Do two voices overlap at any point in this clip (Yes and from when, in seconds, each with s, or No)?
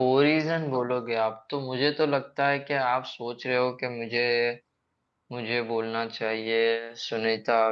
No